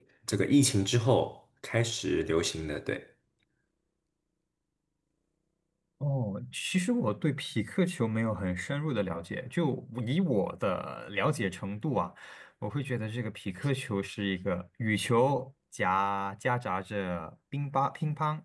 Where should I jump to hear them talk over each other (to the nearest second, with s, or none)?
none